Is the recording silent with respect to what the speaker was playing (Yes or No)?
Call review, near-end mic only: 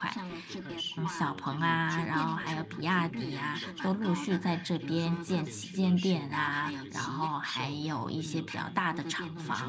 No